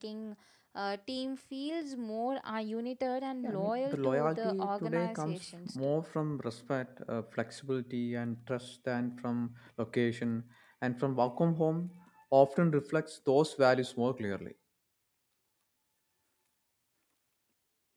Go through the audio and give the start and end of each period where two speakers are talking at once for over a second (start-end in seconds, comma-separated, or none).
3.4-5.9